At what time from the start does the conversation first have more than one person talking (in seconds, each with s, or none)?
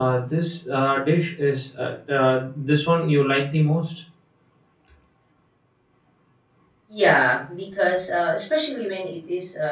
none